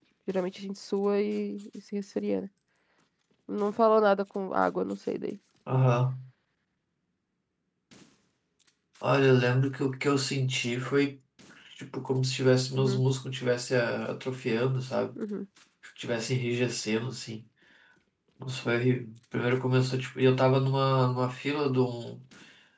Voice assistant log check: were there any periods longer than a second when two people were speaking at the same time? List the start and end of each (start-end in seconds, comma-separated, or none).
none